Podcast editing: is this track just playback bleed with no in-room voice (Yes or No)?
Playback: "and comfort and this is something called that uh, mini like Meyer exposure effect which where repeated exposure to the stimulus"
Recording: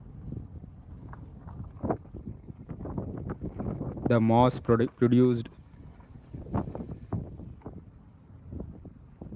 No